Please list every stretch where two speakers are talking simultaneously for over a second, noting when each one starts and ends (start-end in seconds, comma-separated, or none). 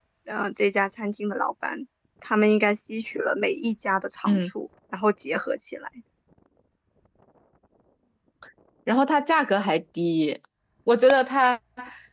none